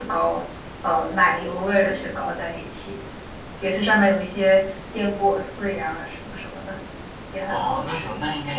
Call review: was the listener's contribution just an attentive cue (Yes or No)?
No